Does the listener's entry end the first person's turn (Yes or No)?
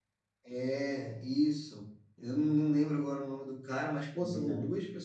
No